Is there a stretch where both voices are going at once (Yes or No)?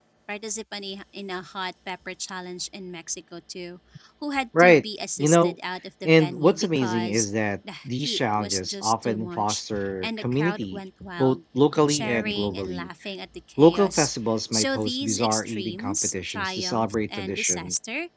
Yes